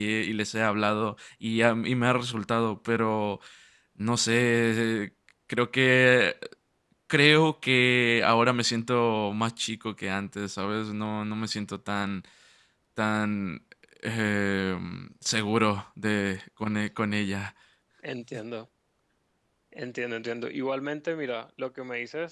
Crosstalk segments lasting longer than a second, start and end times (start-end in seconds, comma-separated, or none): none